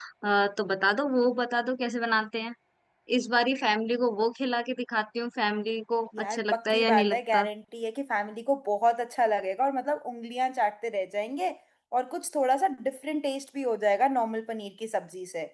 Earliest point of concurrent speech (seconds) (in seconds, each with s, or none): 6.1 s